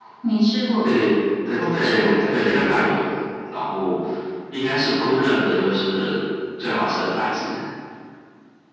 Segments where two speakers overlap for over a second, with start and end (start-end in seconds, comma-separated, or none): 1.6-3.0